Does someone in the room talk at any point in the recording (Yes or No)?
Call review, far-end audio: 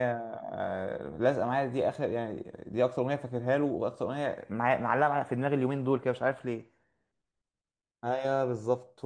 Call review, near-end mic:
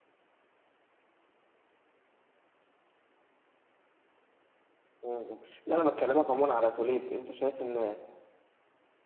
Yes